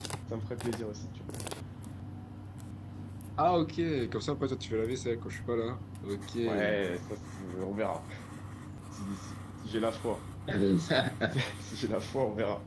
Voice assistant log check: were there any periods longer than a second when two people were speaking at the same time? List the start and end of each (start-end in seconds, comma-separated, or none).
none